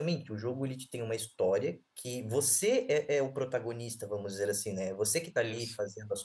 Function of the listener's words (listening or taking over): listening